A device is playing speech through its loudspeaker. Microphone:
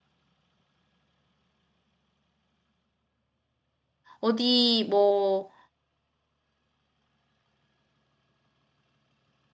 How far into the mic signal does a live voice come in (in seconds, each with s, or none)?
4.2 s